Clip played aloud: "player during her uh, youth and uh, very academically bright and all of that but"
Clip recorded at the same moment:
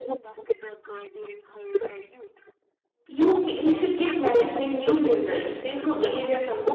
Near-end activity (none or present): present